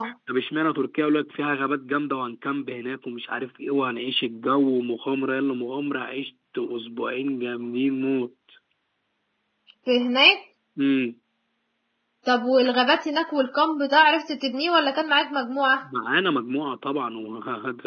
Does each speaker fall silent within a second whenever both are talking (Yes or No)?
Yes